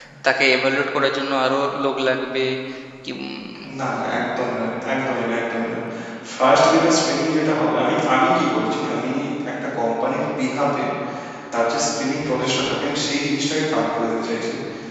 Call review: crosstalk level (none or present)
none